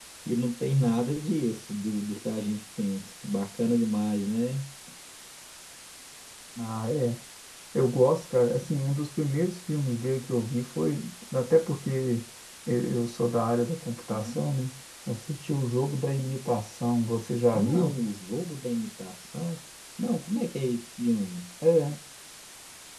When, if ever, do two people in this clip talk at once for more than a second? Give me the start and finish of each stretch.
none

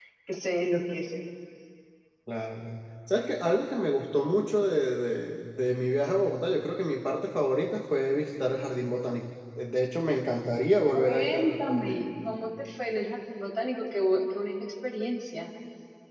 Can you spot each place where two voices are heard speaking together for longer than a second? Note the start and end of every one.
10.9-12.3

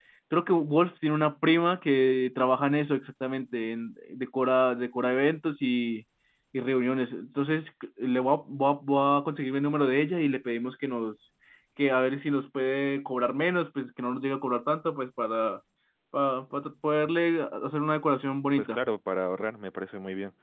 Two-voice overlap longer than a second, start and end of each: none

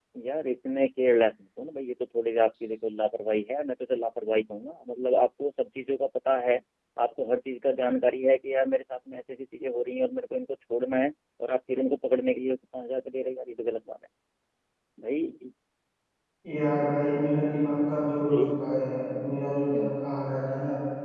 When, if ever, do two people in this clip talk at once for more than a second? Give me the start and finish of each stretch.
none

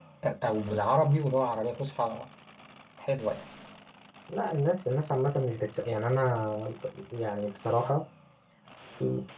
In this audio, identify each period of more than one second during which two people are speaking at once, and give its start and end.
none

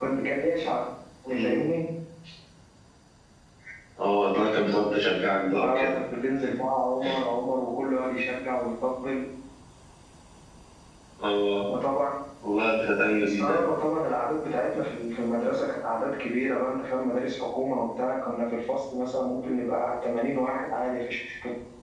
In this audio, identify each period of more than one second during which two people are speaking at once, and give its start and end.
none

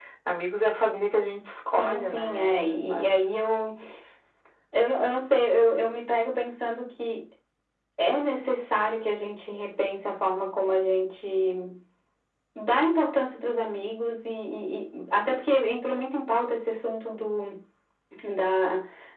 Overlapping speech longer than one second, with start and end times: 1.8-3.1

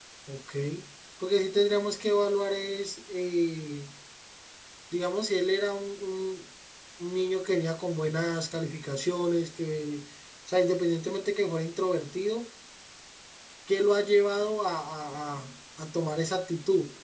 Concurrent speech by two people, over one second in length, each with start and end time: none

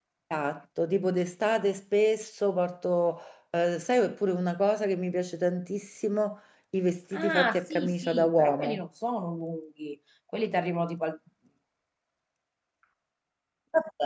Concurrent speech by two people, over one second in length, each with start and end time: 7.1-8.8

